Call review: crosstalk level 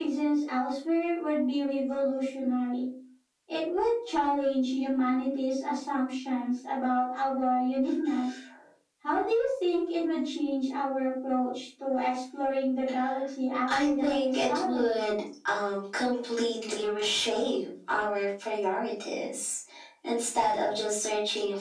present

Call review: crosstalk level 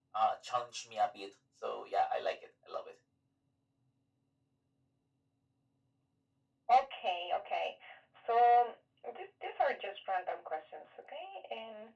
none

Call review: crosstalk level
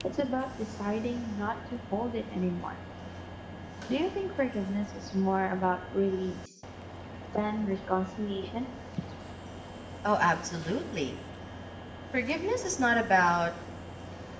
none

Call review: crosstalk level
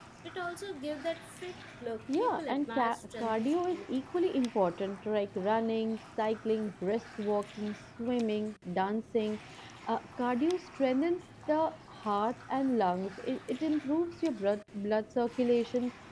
present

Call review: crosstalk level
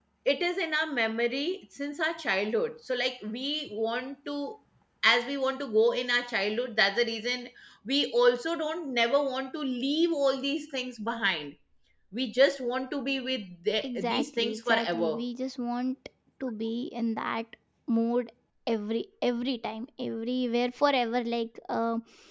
present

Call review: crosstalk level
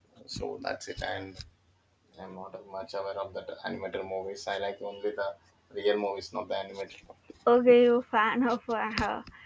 none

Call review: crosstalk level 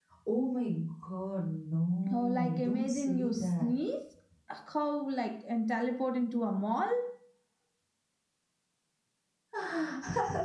present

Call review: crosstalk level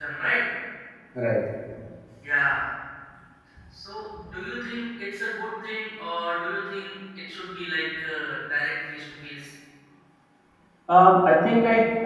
none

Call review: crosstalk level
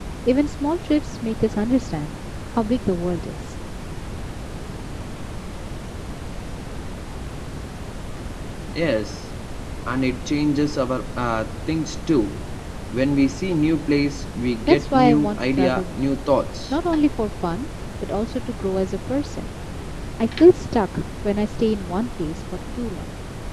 present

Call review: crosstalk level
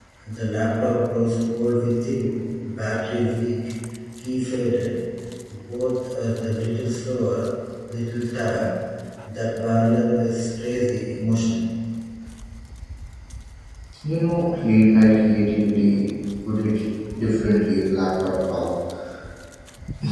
none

